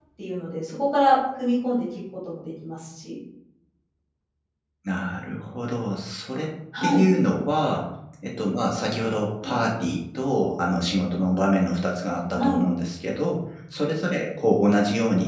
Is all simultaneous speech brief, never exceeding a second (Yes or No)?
Yes